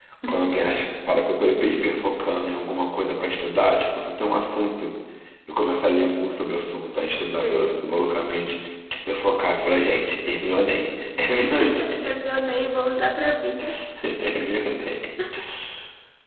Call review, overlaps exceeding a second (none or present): none